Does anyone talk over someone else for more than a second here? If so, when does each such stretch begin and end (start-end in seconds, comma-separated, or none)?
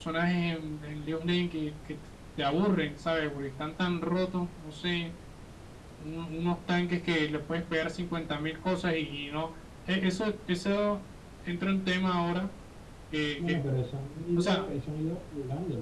none